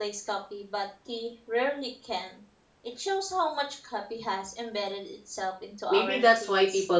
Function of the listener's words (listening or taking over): taking over